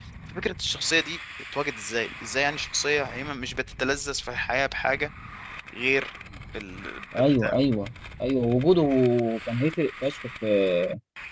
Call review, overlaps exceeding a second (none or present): none